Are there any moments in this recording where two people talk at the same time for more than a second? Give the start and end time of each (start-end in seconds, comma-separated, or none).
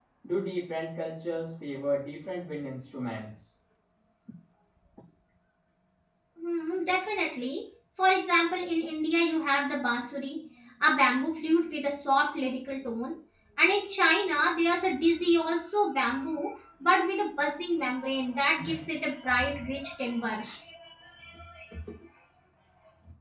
none